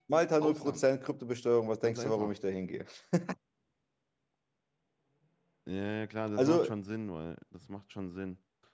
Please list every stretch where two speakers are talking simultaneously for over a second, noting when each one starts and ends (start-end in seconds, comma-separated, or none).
none